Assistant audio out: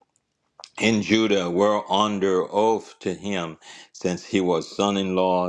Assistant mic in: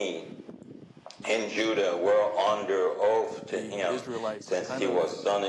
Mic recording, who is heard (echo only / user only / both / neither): both